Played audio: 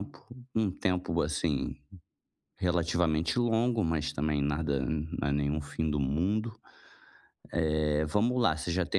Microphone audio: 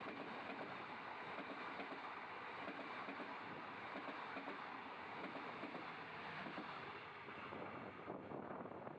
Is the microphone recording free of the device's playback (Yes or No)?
Yes